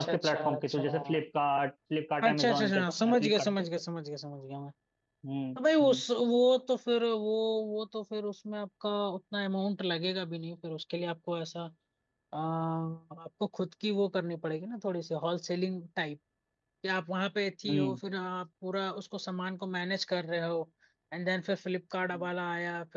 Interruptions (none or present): present